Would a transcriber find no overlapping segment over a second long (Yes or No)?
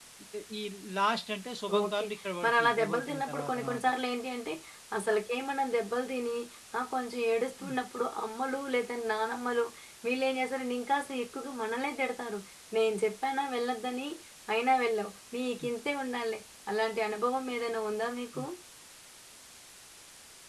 No